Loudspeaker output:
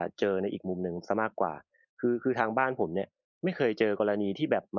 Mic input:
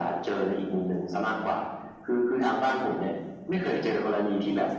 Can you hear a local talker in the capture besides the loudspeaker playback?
No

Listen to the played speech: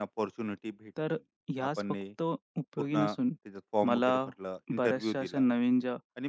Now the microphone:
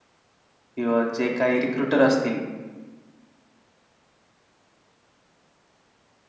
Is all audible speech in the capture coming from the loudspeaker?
No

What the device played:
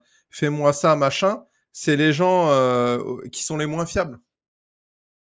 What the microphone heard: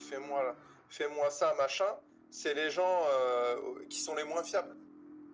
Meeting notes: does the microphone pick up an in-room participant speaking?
No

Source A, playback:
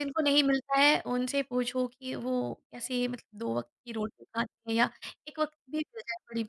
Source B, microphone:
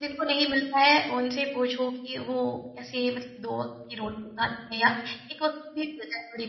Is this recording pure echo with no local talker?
Yes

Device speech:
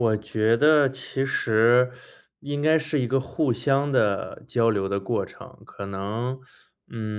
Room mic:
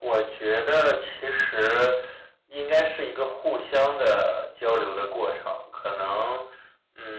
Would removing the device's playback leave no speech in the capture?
Yes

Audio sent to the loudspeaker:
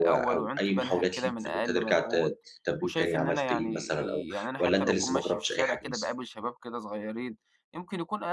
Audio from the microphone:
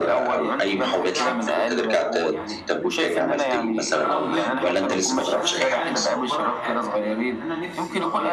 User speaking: Yes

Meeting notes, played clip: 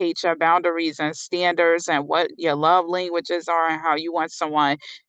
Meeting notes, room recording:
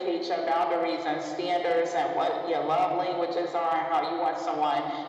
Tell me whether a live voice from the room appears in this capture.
No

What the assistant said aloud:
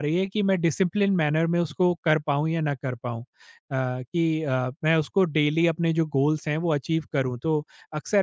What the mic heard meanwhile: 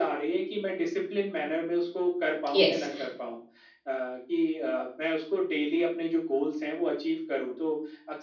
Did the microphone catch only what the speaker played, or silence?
No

